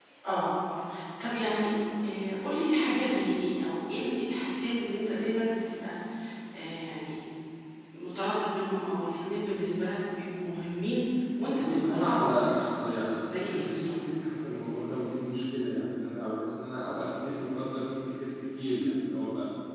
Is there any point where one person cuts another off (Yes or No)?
Yes